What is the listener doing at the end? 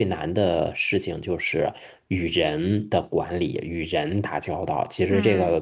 listening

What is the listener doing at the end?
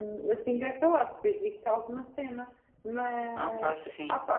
listening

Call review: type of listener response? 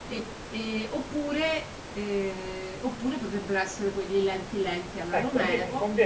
taking over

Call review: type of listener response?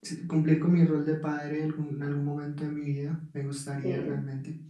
listening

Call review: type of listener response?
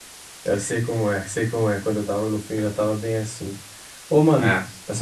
listening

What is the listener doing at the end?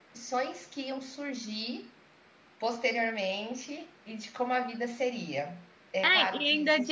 taking over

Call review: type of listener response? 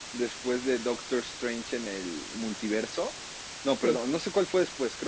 listening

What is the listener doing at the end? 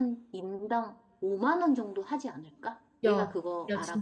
taking over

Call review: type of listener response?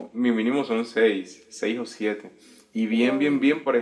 listening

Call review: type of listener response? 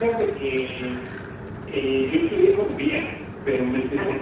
listening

